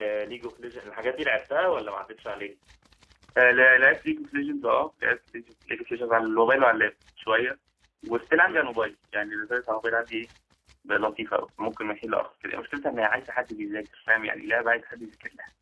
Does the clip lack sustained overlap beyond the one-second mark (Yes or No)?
Yes